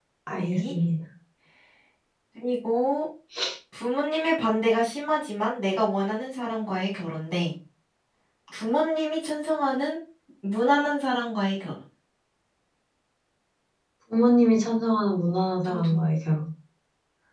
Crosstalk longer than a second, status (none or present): none